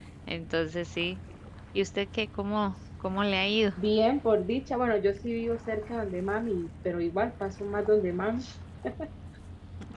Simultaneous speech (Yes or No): No